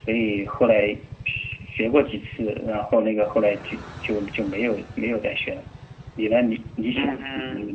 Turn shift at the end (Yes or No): Yes